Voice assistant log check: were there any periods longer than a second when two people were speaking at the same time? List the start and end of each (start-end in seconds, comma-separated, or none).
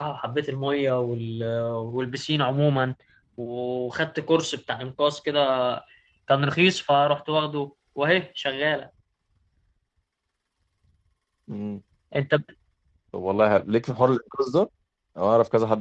none